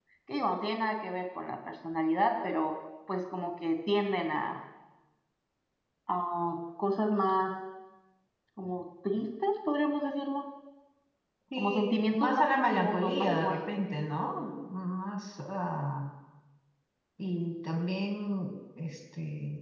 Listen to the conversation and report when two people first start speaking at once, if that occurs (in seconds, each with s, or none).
11.6 s